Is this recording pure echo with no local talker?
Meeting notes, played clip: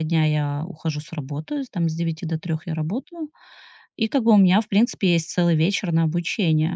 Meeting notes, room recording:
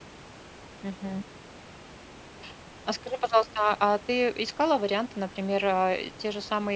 No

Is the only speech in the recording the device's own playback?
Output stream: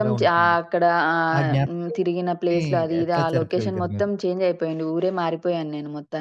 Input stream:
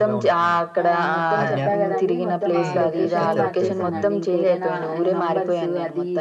No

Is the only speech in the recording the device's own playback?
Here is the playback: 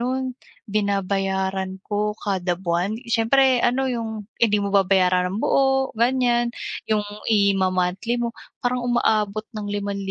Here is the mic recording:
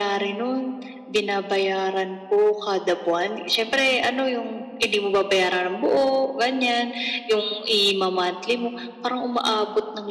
Yes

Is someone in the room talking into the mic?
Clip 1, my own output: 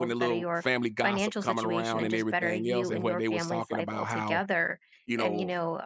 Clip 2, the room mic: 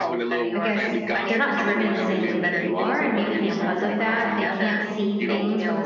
Yes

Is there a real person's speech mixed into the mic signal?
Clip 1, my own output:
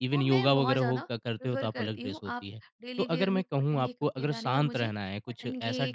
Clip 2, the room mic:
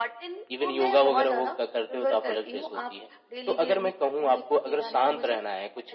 No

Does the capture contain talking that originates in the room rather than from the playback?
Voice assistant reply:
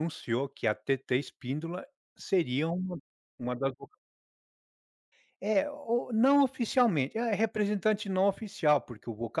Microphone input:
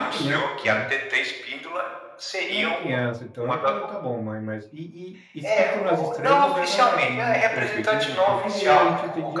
Yes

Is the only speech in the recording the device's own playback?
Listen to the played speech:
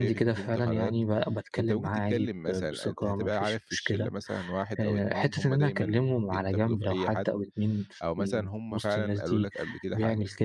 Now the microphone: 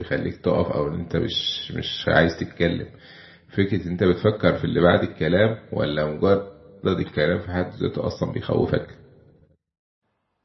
No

